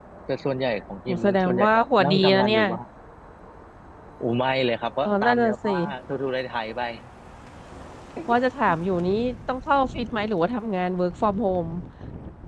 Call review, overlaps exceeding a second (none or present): present